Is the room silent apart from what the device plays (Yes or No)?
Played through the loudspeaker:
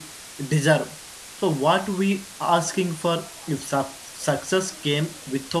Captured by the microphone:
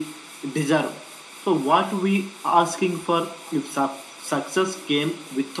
Yes